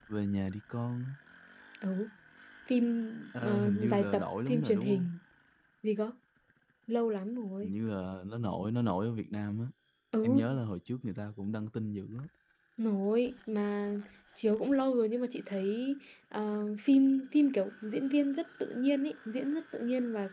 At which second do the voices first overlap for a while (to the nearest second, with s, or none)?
3 s